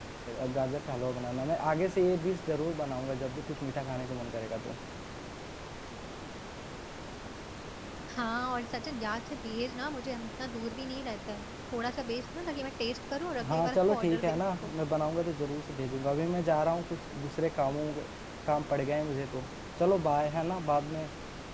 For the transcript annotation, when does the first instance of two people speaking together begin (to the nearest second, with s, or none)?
13 s